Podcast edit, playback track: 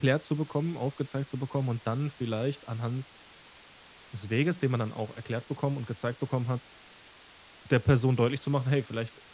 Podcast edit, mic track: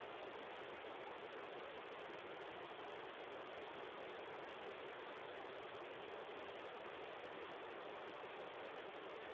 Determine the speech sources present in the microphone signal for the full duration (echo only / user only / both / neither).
neither